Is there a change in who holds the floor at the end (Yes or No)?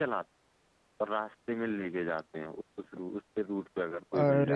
Yes